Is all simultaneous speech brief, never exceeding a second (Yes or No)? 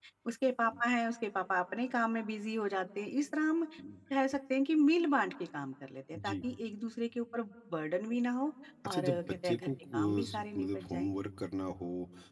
No